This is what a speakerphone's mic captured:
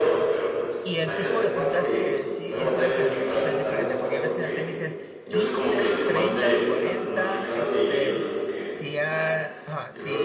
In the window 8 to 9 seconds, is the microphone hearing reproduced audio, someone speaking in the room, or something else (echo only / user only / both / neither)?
both